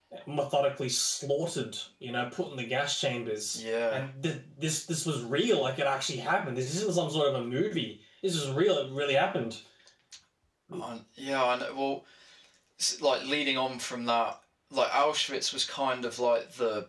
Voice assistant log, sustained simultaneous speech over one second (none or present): none